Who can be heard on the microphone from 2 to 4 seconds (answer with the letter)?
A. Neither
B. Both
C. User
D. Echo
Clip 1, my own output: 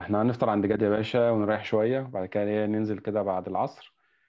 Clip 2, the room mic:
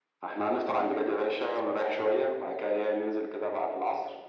D